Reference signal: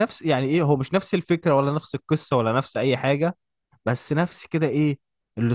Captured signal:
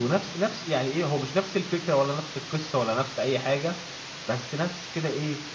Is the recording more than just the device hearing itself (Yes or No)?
No